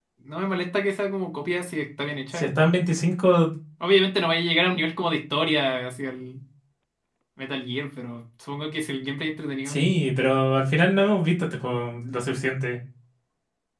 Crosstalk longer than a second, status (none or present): none